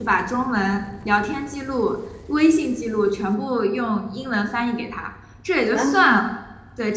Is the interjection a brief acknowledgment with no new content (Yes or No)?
Yes